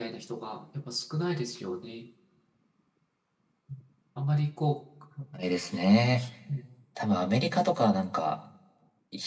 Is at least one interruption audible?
No

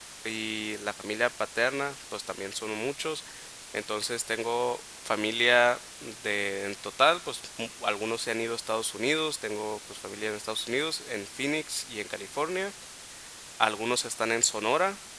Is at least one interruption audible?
No

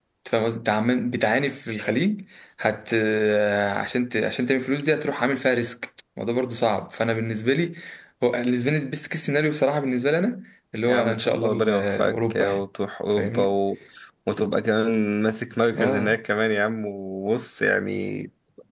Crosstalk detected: Yes, from 10.9 s

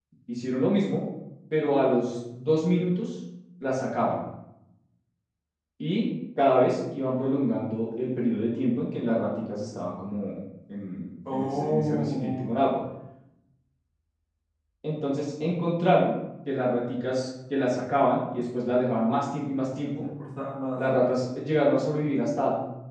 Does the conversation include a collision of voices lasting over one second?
Yes, from 11.3 s

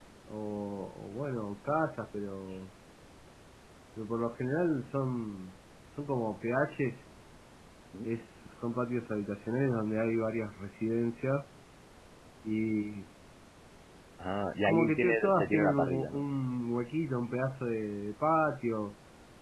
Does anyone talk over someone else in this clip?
Yes, from 14.6 s

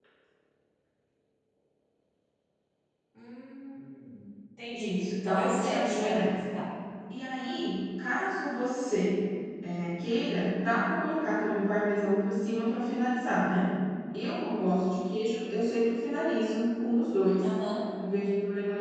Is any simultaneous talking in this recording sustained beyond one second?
Yes, from 4.7 s

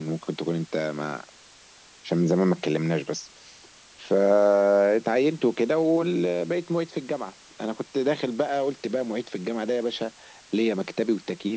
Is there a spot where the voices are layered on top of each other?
No

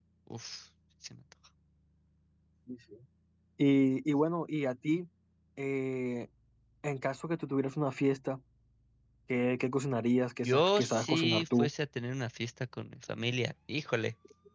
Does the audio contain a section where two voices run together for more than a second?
Yes, from 10.4 s

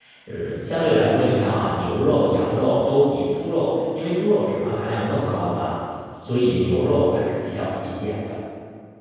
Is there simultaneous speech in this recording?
No

